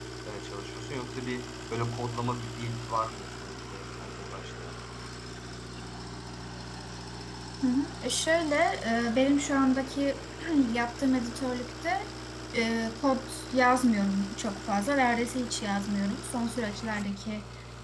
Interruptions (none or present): none